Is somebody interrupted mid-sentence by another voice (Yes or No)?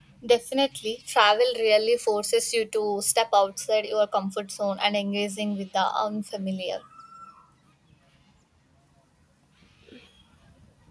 No